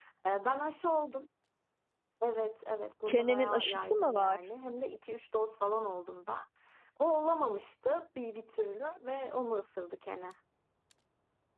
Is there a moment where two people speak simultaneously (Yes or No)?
Yes